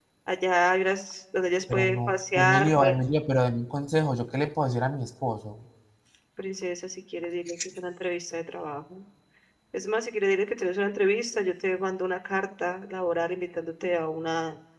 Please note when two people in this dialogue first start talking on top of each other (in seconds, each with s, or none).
1.7 s